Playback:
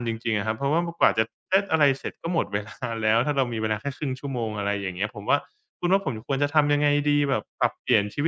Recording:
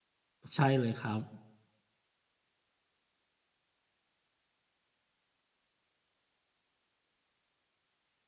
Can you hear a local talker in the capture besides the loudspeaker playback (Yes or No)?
Yes